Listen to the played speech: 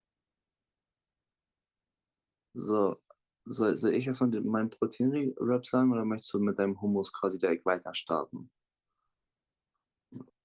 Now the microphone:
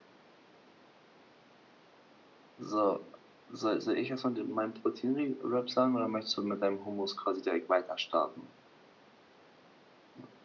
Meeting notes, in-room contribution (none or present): none